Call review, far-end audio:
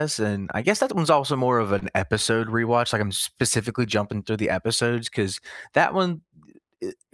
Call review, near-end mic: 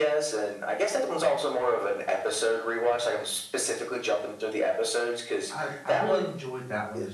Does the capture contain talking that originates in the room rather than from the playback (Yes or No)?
Yes